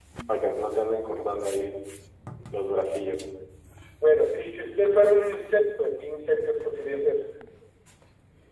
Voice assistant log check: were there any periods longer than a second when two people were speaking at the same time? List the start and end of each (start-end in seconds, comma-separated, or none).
none